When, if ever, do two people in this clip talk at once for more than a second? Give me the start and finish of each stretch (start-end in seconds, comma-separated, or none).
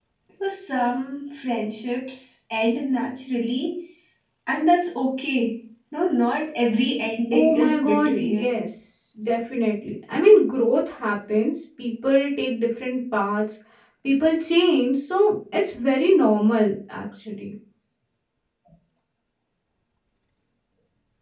7.3-8.5